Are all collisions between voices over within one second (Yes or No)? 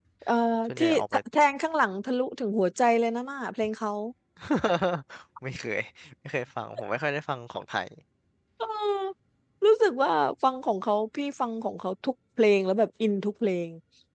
Yes